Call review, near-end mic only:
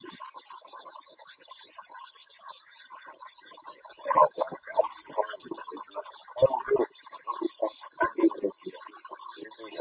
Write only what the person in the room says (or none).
none